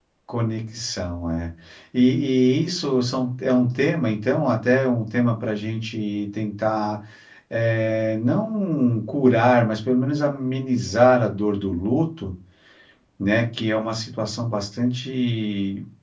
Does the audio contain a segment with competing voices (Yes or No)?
No